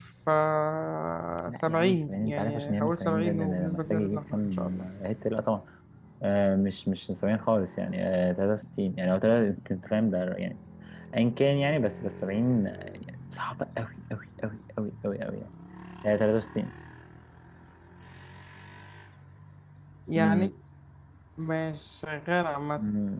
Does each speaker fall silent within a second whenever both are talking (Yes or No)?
No